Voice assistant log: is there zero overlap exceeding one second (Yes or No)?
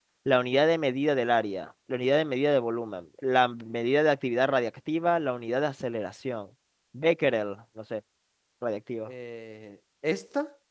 Yes